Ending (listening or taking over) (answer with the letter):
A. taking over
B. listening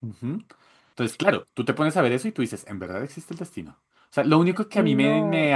B